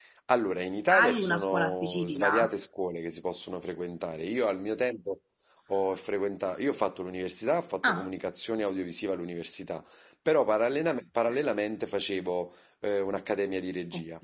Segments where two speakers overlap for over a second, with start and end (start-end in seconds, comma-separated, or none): 0.9-2.3